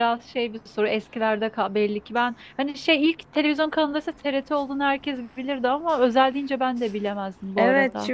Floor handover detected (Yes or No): Yes